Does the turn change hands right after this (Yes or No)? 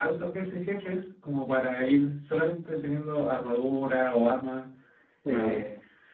No